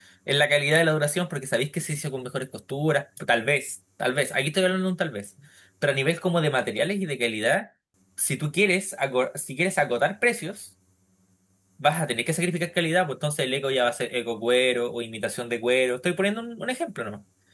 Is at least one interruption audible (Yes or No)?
No